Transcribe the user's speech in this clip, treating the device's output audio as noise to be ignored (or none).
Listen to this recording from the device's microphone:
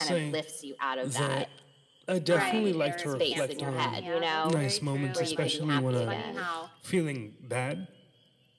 Right, or if you can't see them. Yeah, that's very true, and, like, it's funny how,